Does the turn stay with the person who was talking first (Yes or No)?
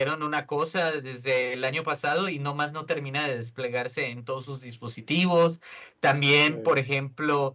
Yes